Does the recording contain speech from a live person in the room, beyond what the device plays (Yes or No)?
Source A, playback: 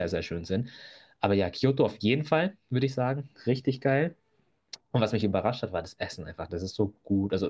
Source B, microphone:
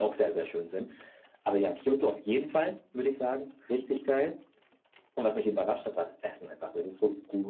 No